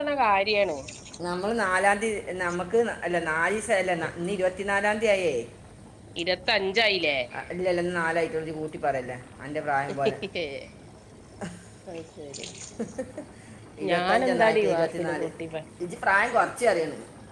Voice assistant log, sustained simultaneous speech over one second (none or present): present